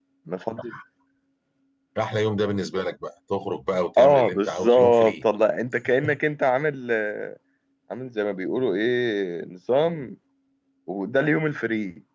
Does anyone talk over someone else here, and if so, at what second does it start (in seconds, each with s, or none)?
4.0 s